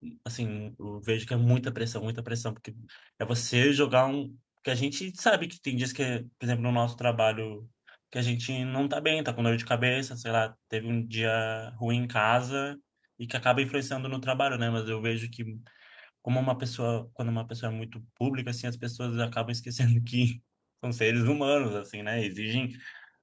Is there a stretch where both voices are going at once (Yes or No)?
No